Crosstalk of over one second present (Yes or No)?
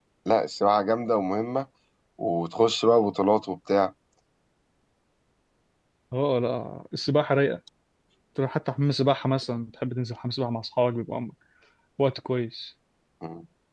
No